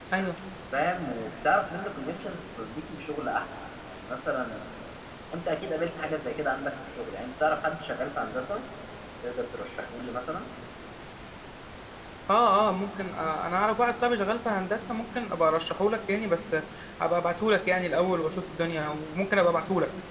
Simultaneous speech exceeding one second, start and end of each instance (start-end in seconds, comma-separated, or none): none